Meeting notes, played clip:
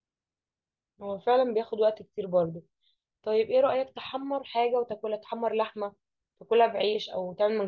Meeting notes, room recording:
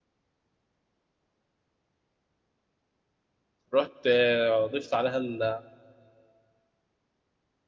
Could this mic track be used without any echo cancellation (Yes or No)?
Yes